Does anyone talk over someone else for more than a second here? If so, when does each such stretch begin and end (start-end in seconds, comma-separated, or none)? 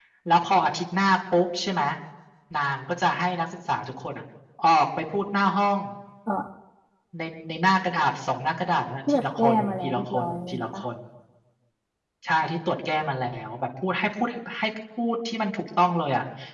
9.1-10.8